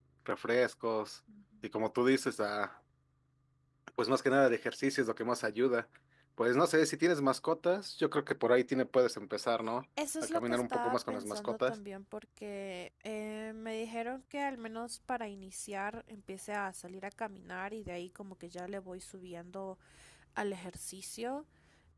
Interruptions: present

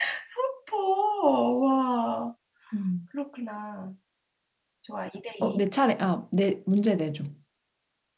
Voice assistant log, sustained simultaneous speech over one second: none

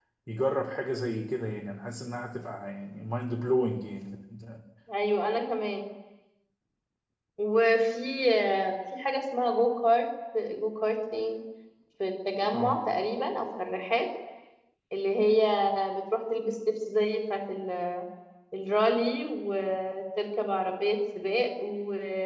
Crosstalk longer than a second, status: none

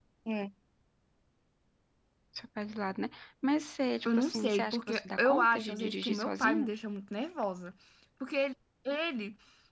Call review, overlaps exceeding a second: present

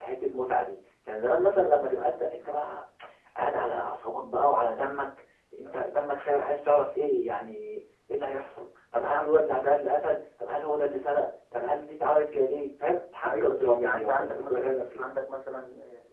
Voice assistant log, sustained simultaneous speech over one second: present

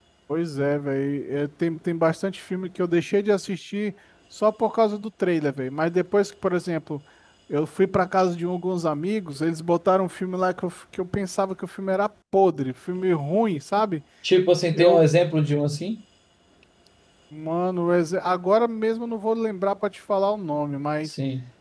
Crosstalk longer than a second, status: none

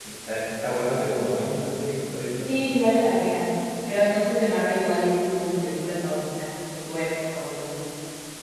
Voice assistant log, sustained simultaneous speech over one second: none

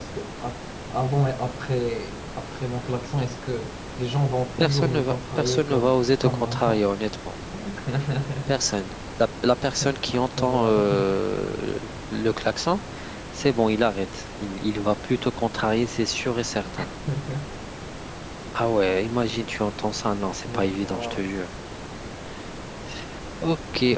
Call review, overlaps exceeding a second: present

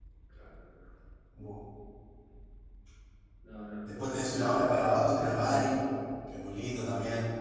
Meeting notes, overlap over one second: present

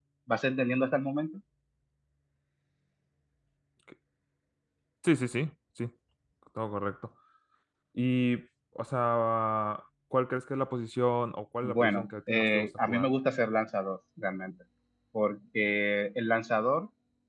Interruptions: present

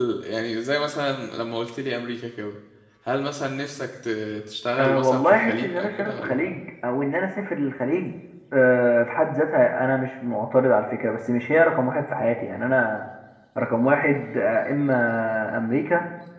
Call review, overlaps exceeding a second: present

